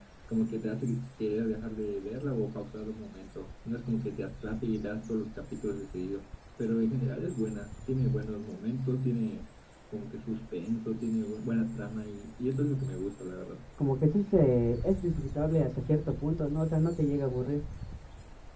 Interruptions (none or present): none